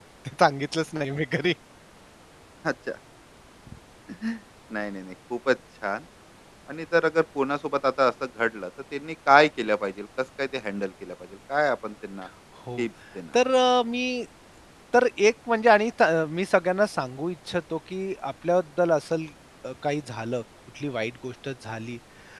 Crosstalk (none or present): none